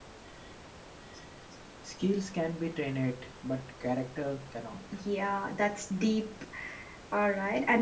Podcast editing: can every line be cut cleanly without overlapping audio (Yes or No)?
Yes